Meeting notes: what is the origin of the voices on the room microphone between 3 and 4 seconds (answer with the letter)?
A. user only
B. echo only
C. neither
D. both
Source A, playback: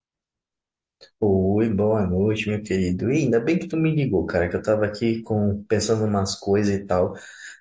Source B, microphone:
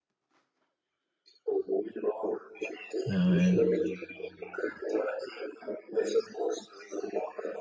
D